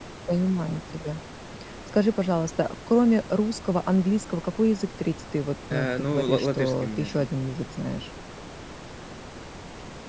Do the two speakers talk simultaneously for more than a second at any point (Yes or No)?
Yes